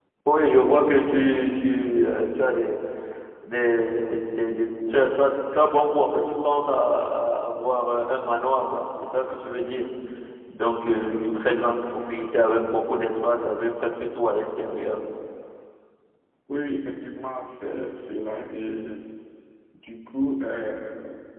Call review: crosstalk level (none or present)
none